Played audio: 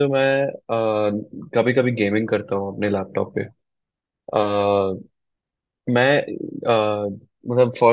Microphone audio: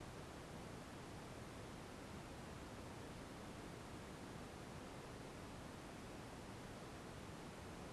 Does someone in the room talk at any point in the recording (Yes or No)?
No